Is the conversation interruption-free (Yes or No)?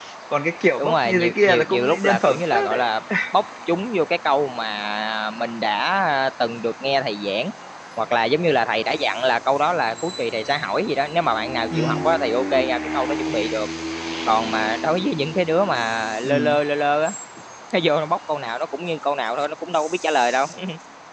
No